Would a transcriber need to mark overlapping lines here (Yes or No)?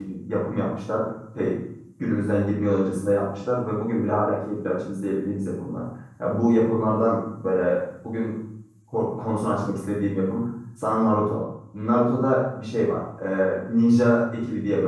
No